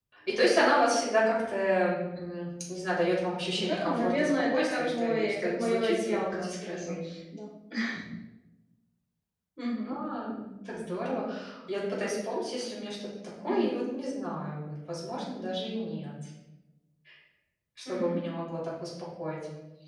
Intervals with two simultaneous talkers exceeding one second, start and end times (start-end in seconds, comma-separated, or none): 3.5-6.9